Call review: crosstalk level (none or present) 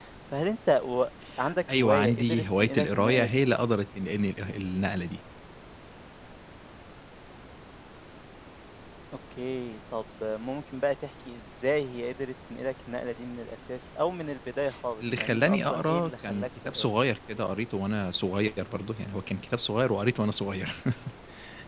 present